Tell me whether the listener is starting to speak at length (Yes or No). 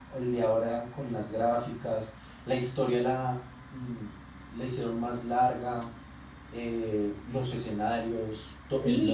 Yes